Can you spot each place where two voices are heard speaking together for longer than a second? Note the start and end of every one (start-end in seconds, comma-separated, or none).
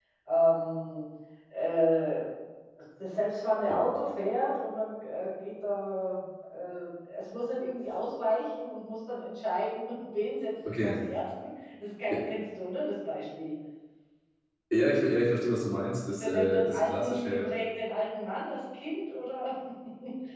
16.2-17.4